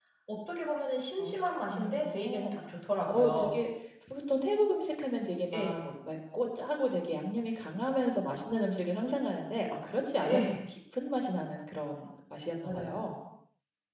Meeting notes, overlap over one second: present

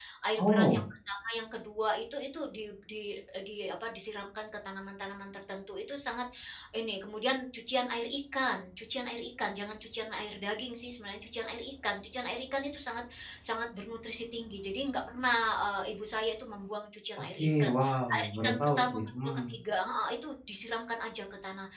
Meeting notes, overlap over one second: present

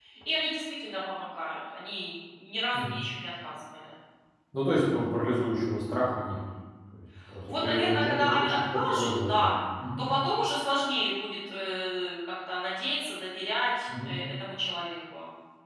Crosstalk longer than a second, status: present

